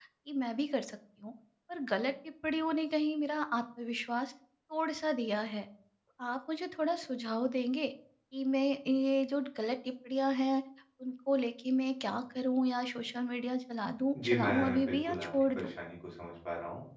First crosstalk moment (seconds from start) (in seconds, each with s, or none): 14.2 s